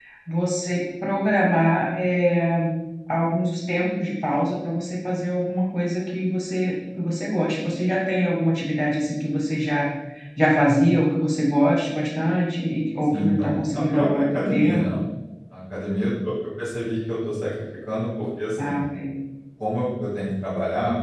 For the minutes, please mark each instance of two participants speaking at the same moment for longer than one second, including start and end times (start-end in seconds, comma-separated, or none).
13.1-14.8